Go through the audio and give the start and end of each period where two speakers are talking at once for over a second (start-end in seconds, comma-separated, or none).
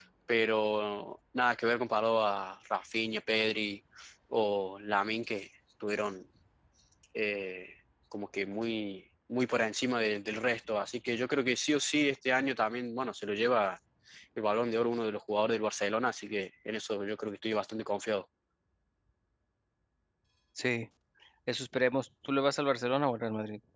none